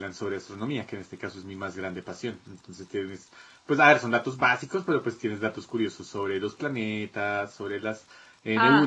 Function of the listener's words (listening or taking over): listening